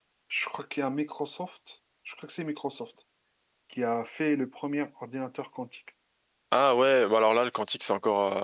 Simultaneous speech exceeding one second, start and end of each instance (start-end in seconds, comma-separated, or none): none